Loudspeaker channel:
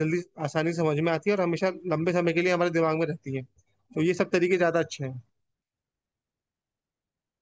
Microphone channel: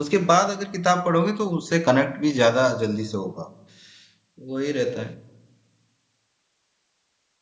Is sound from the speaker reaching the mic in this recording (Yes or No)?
No